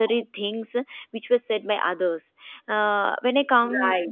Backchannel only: Yes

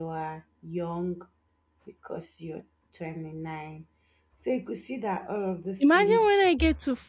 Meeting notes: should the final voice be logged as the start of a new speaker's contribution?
Yes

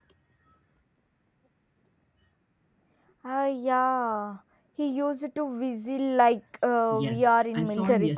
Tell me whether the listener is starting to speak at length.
Yes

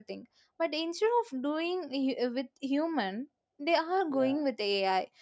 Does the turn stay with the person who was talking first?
Yes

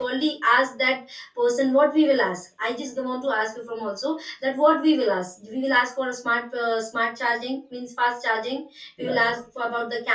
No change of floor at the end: Yes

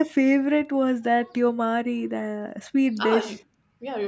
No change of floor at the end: No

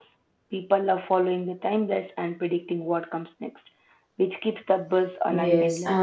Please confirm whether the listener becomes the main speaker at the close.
Yes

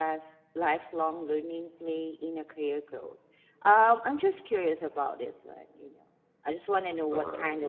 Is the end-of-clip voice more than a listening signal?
No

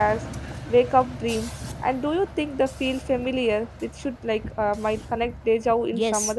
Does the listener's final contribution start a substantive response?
Yes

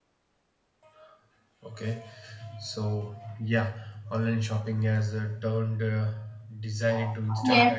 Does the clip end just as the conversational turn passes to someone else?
Yes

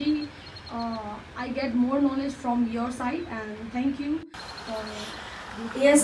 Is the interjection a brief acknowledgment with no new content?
No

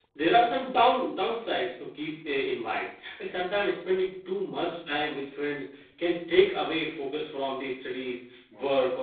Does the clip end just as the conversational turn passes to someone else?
No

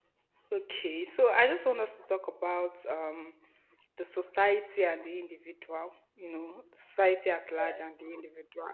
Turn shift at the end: No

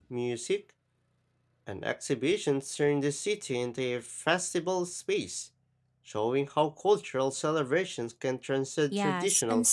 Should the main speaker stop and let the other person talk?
Yes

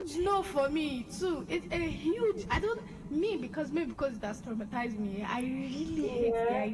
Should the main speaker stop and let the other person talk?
No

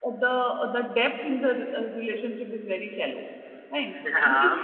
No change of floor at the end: No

